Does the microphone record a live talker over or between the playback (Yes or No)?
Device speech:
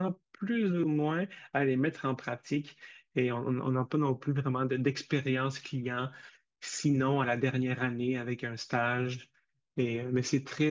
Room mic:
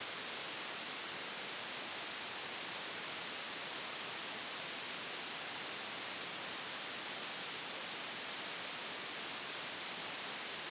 No